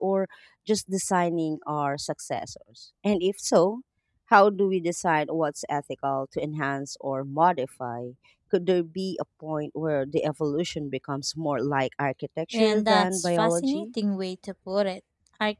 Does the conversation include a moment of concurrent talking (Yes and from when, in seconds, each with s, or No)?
Yes, from 12.5 s